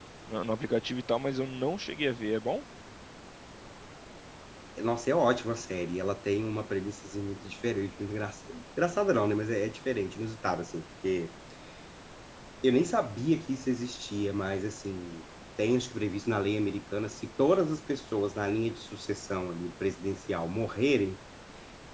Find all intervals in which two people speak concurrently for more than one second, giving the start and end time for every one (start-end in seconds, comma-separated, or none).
none